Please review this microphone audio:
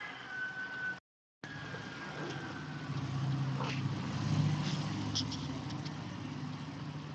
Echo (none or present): none